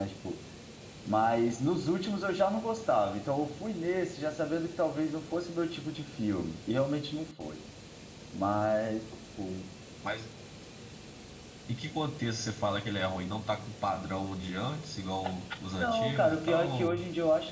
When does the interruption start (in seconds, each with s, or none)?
15.8 s